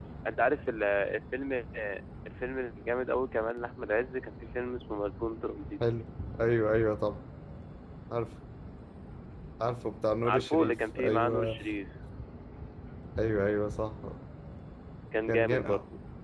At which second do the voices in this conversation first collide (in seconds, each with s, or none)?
10.2 s